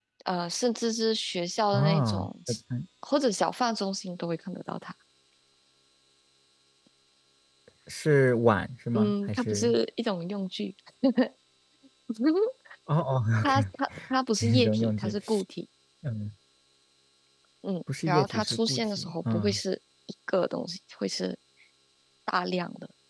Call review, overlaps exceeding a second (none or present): present